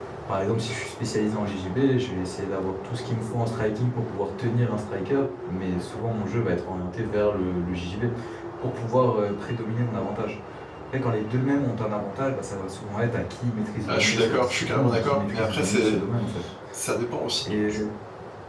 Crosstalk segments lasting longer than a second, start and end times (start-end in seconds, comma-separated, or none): 13.8-16.0